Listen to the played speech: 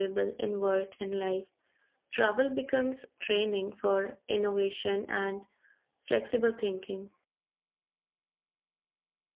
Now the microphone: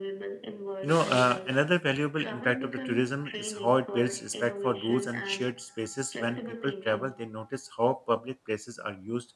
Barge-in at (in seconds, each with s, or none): 0.8 s